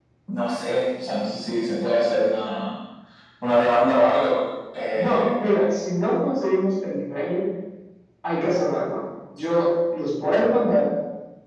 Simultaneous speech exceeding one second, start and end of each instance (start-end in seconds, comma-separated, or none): none